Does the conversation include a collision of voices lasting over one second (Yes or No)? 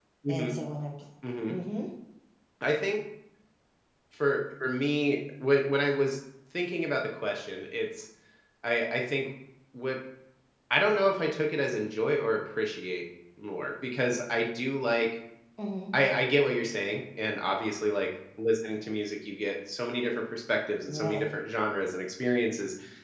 No